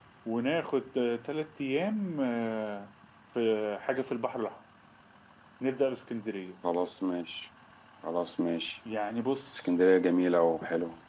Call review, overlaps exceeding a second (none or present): none